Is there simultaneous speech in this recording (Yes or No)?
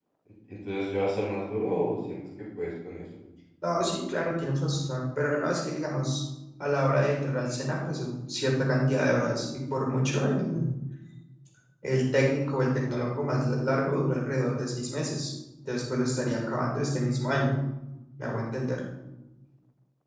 No